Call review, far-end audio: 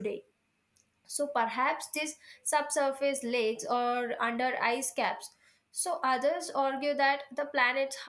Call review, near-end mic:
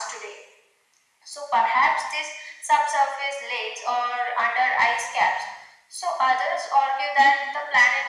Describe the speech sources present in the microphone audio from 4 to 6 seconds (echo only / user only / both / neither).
echo only